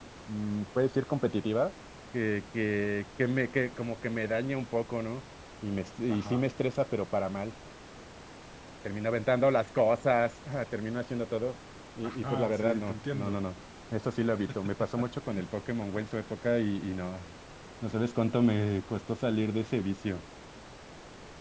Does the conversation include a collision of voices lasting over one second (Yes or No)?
Yes